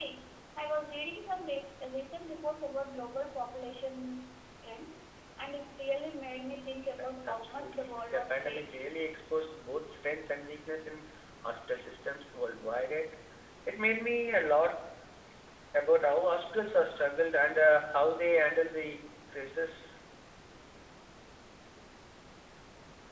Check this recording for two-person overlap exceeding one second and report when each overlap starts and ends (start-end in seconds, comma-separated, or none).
7.0-8.8